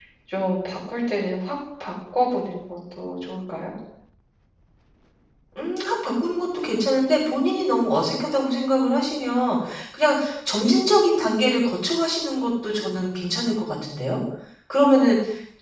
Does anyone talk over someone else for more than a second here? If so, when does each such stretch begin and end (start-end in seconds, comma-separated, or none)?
none